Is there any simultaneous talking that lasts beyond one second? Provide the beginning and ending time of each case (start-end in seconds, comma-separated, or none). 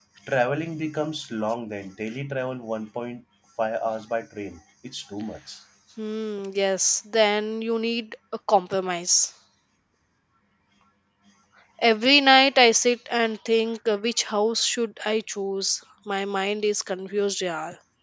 none